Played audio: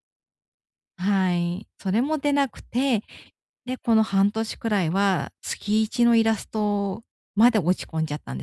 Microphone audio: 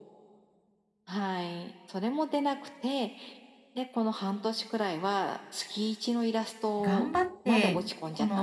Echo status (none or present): present